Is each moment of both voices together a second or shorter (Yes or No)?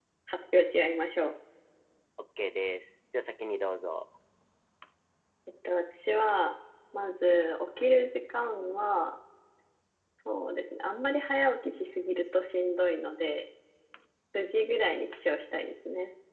Yes